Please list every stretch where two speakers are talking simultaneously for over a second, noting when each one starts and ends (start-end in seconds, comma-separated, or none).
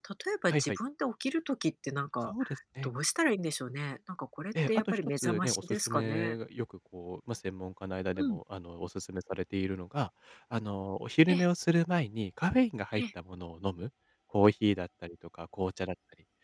4.7-6.4